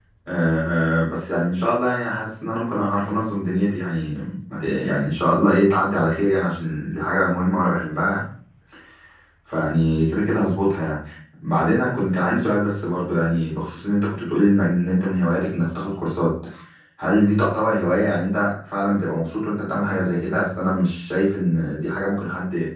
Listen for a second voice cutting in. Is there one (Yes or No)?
No